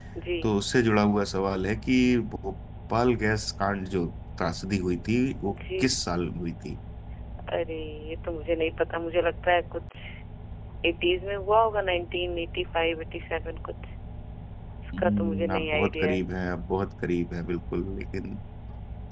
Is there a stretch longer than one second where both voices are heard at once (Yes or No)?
Yes